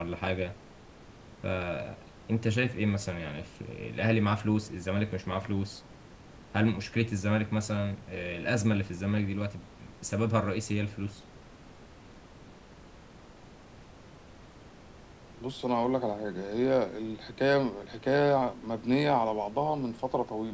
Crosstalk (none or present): none